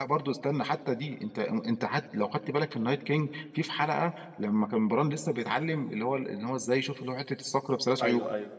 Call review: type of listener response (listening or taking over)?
listening